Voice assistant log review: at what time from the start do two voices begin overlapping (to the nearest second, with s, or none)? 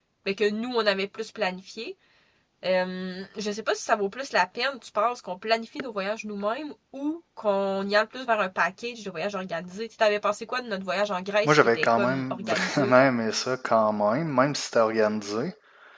11 s